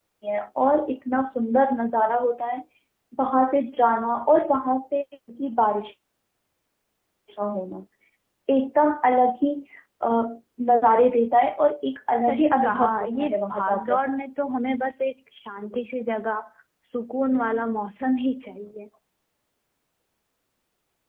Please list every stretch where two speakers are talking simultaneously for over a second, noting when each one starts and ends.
12.3-14.0

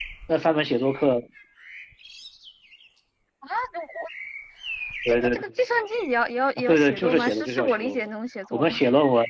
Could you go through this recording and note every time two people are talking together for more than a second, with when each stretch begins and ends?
6.6-8.1

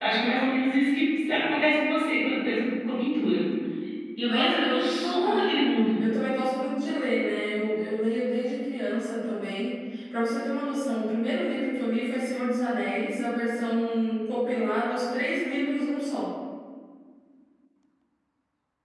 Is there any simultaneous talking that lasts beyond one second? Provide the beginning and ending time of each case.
4.2-5.5

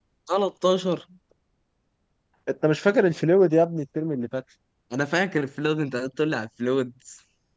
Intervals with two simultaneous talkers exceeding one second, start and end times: none

